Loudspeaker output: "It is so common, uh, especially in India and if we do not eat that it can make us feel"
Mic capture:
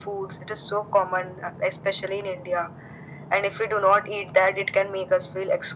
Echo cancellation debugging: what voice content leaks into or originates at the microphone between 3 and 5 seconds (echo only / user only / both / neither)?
echo only